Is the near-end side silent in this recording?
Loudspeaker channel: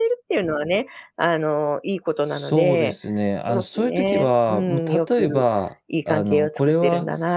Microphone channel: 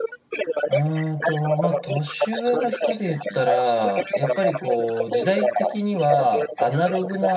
No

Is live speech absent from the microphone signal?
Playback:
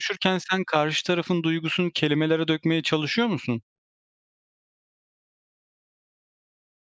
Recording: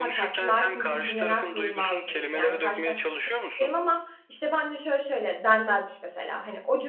No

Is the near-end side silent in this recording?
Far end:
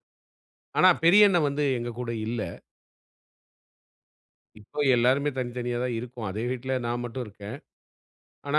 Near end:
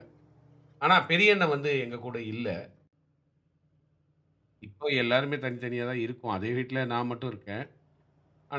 Yes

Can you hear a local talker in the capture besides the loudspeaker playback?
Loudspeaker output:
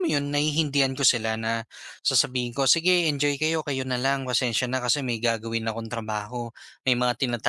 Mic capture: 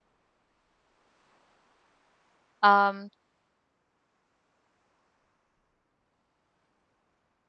Yes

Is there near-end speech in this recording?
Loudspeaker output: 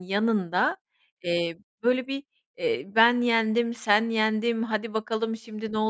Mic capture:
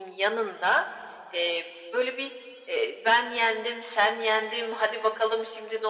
No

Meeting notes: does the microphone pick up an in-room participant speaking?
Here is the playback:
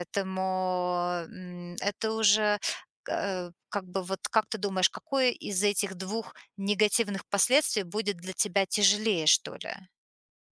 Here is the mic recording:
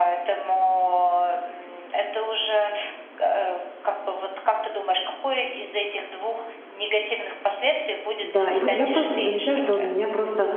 Yes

